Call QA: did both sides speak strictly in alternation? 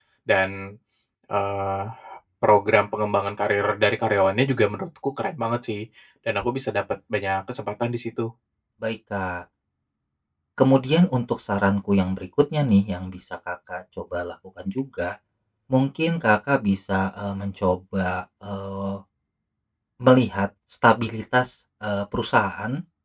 Yes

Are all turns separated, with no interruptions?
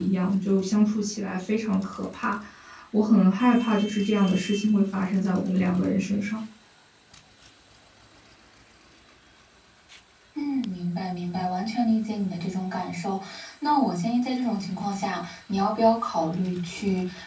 Yes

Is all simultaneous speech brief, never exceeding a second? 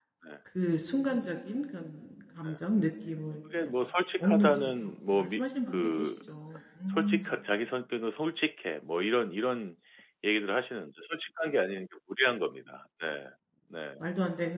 No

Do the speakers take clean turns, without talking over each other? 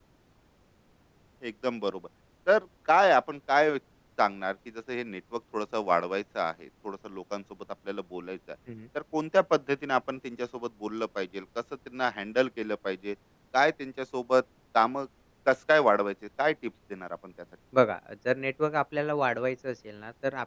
Yes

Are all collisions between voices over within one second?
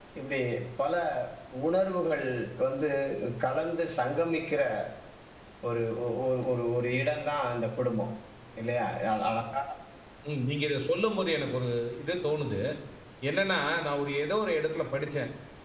Yes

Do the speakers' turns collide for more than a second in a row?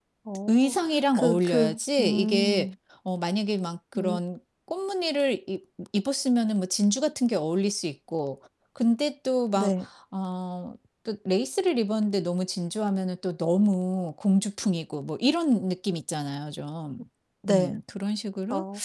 Yes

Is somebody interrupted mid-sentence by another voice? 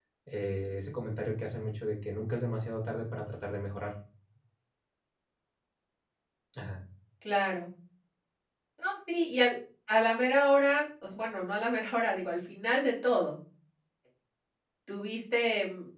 No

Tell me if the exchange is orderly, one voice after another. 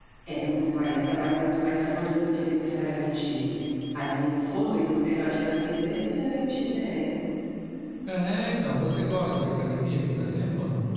Yes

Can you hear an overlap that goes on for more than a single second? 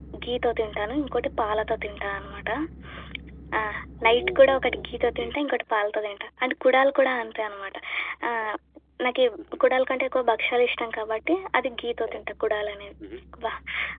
Yes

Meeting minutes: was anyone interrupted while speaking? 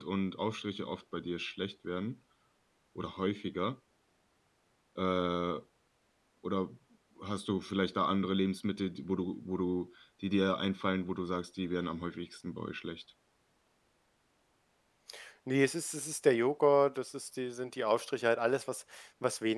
No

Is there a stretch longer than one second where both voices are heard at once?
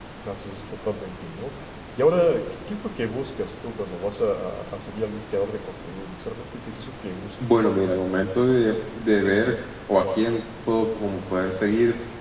No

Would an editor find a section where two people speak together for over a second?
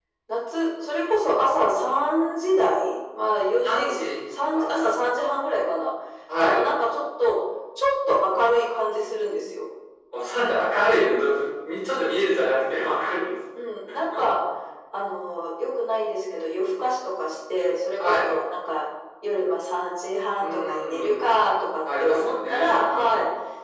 Yes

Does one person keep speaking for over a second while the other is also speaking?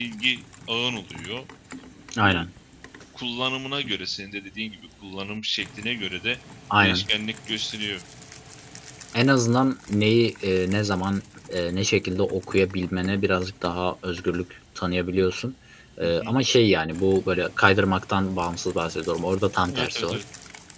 No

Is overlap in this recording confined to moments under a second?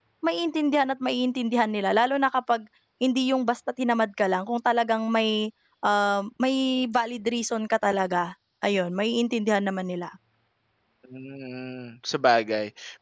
Yes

